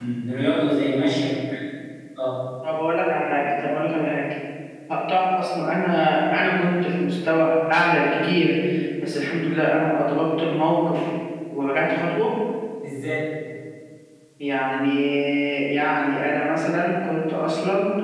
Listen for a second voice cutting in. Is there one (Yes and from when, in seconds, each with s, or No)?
No